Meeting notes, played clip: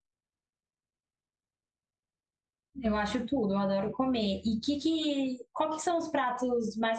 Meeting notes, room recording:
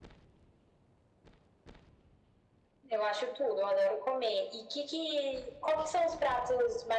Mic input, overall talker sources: echo only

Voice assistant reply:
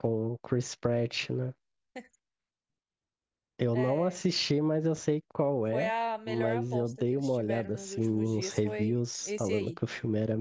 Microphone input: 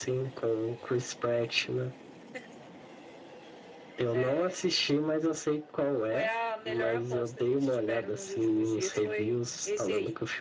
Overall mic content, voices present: echo only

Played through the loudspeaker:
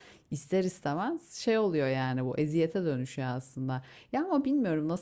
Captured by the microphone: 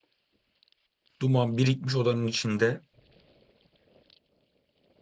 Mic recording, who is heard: user only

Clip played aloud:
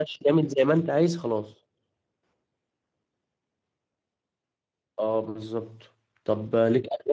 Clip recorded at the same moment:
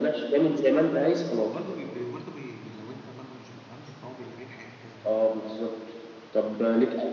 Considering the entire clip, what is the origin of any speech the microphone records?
both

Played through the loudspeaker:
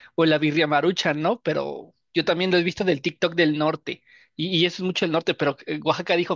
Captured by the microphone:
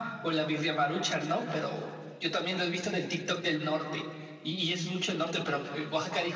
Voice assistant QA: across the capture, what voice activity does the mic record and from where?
echo only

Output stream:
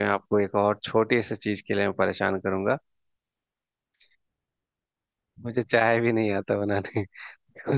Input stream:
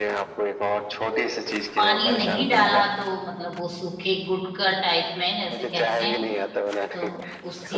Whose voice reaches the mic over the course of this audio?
both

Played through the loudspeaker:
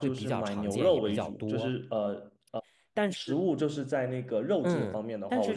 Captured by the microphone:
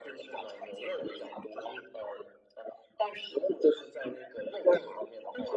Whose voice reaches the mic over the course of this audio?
echo only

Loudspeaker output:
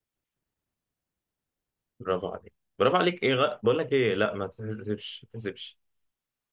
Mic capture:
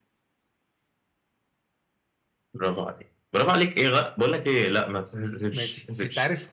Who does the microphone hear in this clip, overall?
both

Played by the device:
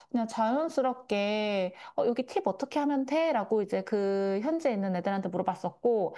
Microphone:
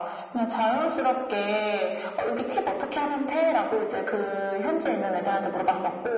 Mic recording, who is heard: echo only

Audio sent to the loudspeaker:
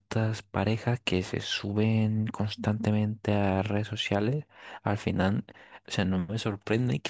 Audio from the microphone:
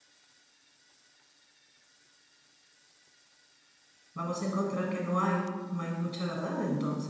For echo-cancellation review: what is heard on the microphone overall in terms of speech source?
user only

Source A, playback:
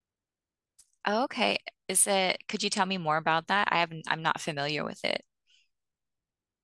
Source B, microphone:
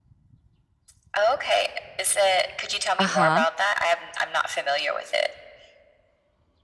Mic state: both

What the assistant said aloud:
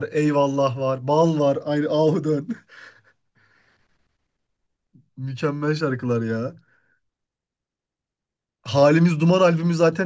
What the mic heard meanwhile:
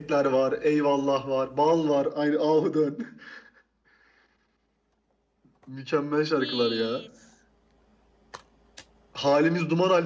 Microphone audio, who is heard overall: both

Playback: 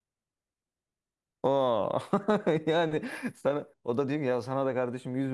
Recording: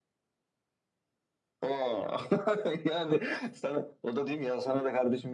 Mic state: echo only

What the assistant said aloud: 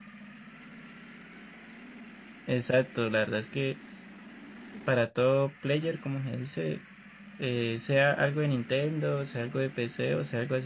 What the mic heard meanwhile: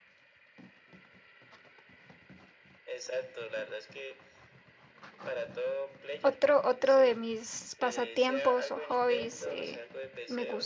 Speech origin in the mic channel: both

